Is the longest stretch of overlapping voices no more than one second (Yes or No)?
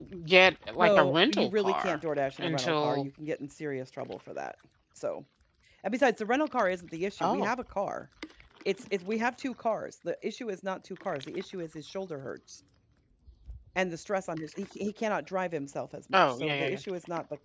No